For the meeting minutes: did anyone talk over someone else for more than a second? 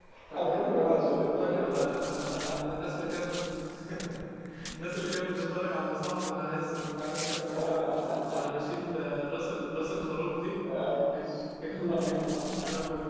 Yes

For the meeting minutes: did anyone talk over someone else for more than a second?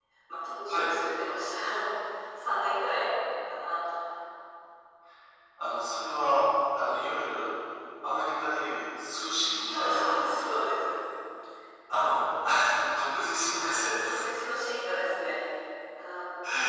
No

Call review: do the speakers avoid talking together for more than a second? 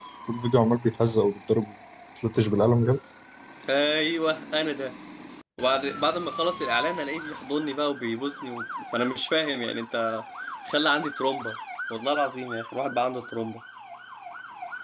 Yes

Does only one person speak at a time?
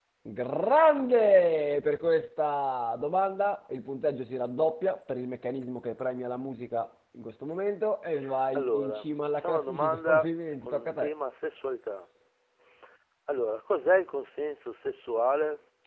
No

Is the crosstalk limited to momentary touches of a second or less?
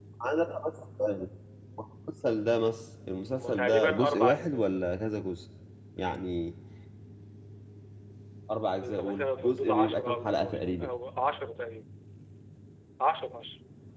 No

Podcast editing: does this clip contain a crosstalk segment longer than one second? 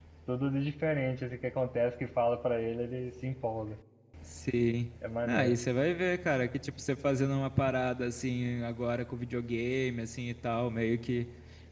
No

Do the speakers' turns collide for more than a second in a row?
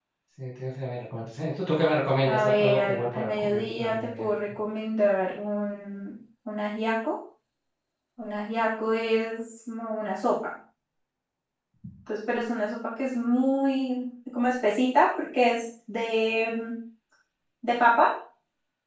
Yes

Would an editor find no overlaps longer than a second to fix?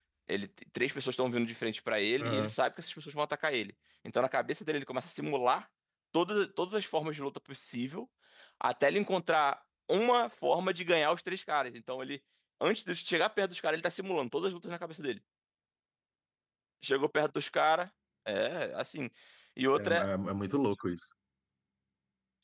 Yes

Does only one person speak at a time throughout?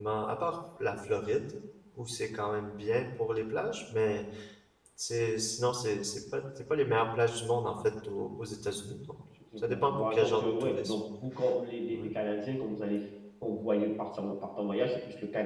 No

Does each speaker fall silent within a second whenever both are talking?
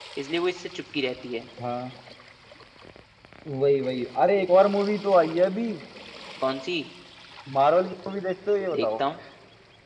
Yes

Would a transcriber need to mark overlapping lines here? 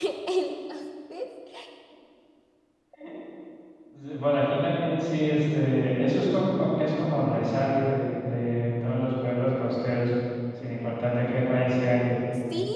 No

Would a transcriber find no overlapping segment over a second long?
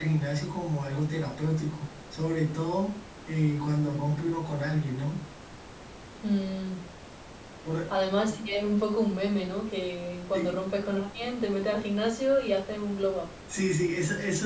Yes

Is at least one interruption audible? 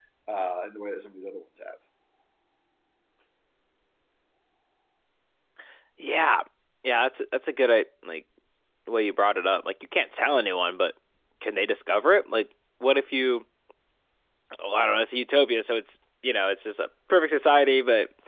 No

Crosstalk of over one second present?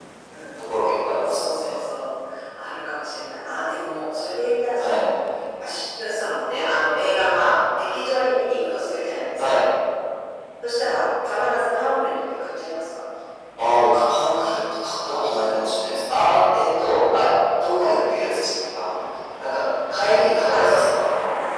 No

